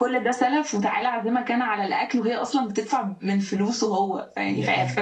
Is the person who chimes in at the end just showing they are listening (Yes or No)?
Yes